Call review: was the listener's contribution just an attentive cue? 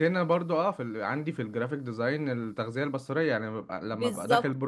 Yes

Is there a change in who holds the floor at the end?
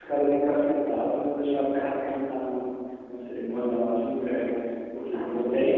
No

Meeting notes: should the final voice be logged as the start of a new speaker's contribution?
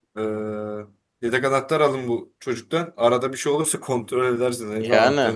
Yes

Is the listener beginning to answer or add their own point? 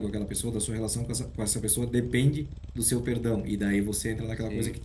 No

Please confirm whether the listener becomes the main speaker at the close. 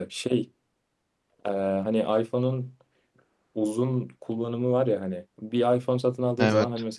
No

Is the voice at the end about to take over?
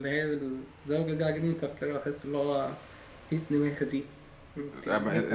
Yes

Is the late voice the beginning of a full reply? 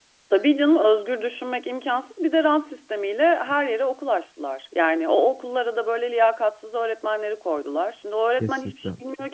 No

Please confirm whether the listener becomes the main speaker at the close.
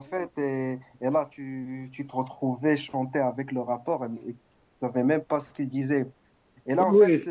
No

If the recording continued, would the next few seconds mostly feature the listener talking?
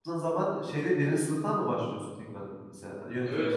Yes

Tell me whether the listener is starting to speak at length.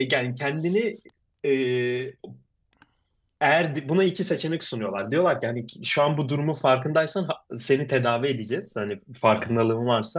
No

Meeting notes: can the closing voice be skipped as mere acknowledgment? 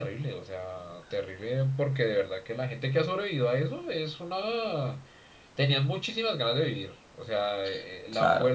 Yes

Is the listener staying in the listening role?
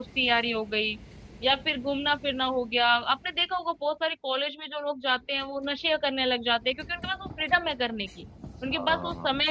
Yes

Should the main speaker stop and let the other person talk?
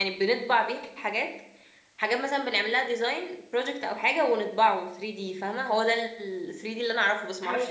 Yes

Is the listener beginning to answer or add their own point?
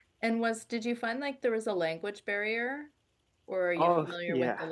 Yes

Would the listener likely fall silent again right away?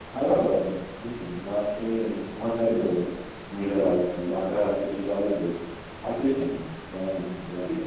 No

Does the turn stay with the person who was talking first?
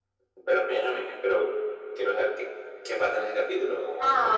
No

